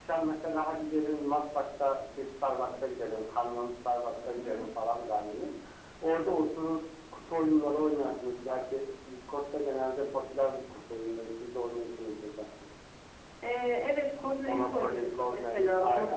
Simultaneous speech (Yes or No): Yes